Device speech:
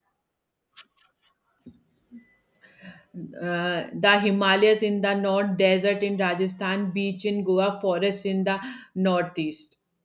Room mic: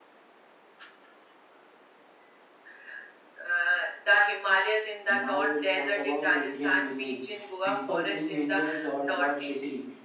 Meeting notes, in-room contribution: present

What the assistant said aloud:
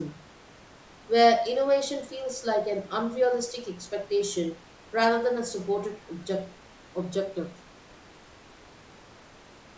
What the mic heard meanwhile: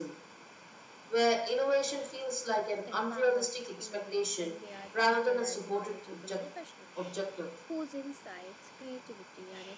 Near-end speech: present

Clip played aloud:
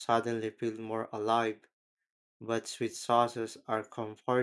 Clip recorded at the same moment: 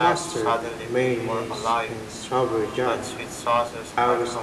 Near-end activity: present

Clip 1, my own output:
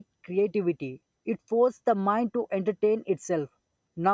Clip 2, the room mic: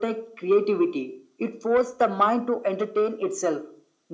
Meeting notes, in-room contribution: none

